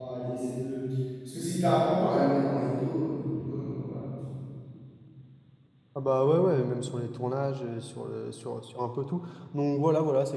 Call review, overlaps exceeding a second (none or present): none